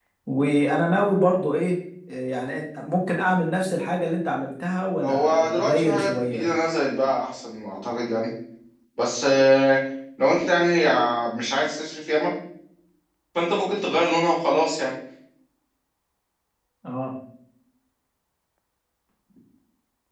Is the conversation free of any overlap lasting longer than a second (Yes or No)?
No